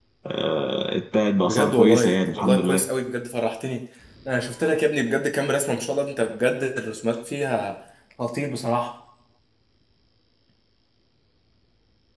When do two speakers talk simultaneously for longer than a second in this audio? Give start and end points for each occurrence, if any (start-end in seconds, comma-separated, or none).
1.4-2.8